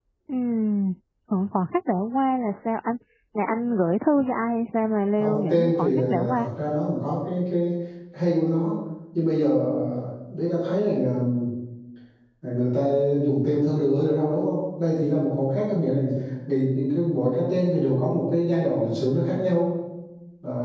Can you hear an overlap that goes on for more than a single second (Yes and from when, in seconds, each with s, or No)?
Yes, from 5.2 s